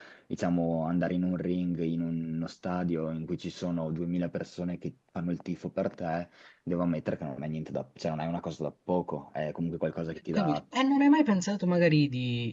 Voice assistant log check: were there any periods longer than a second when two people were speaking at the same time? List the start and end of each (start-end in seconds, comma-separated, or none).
none